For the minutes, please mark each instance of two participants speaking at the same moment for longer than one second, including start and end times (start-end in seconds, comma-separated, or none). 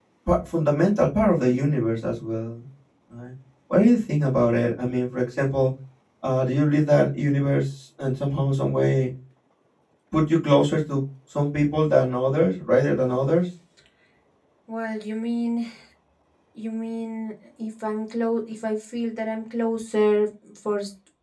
none